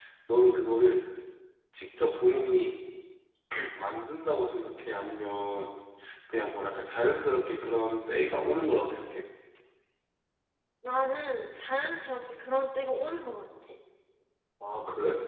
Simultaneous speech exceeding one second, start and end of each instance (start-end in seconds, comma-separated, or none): none